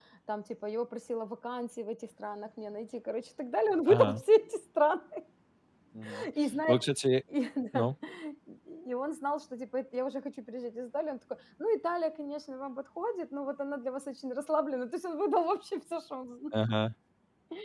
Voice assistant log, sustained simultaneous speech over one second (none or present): none